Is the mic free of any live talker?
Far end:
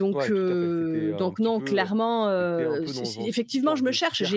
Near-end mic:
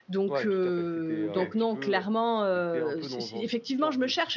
No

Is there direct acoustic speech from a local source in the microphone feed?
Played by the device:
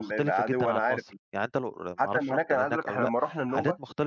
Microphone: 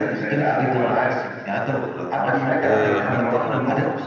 Yes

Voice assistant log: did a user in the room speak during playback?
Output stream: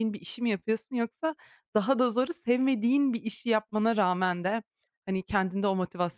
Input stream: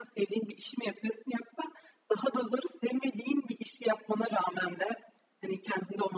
No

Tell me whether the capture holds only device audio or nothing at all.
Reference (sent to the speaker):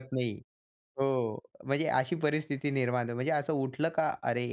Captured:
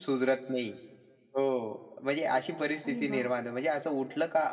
No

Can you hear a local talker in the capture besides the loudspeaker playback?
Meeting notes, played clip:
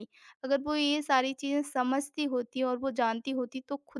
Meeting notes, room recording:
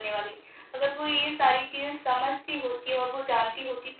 No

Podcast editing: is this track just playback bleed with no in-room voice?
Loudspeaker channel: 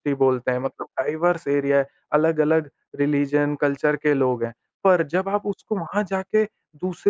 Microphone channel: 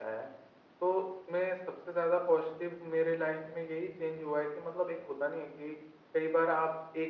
No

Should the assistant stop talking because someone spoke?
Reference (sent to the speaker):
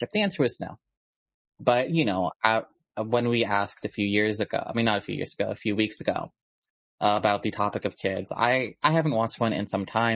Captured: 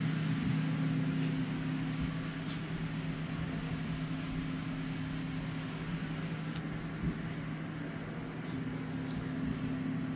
No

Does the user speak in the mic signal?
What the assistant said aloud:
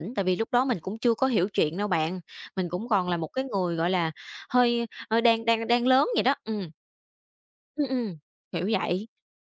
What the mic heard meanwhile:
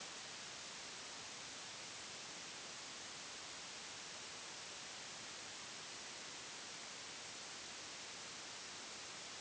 No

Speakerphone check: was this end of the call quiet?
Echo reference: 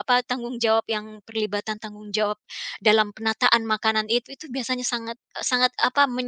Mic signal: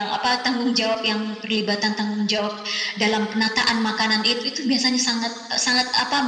Yes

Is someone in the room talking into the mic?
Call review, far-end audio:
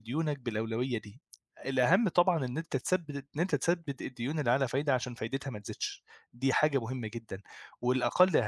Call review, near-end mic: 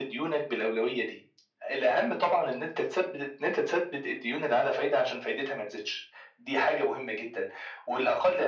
No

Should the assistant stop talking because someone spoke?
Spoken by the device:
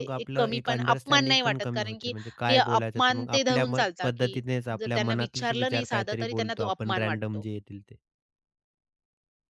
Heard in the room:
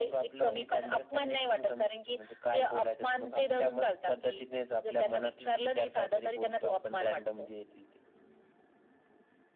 No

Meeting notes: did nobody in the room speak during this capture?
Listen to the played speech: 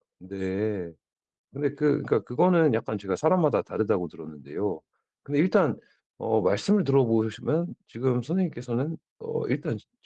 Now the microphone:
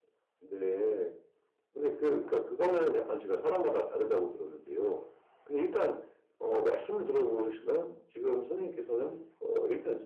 Yes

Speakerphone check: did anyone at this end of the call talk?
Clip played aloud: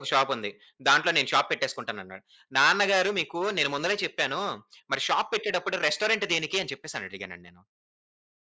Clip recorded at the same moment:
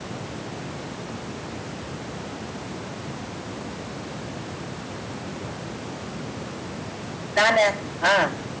Yes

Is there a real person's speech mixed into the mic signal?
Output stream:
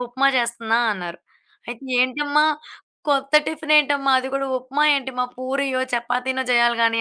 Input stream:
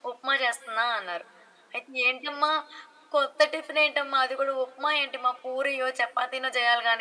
No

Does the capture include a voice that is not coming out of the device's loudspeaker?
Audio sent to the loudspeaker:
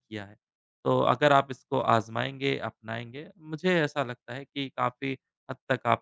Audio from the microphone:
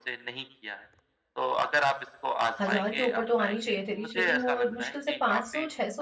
Yes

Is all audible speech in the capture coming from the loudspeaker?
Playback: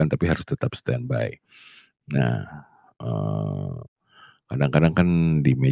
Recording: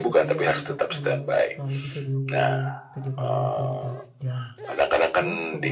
No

